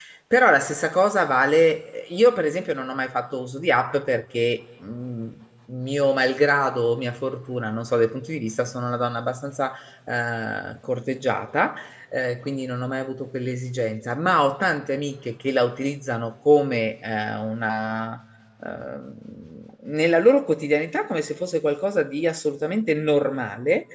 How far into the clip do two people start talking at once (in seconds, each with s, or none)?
none